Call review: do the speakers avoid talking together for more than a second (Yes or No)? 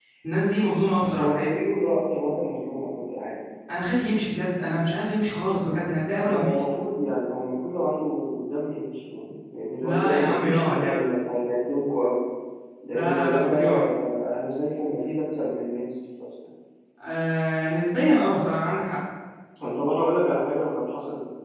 No